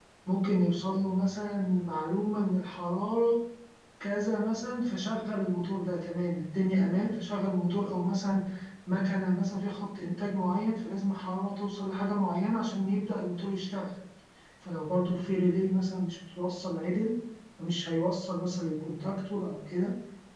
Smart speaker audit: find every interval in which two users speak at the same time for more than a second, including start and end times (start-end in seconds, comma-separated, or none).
none